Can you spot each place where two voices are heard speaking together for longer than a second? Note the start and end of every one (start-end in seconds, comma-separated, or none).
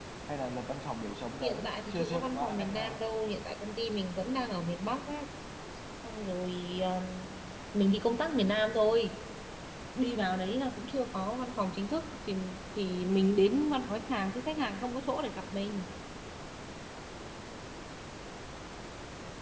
1.6-3.0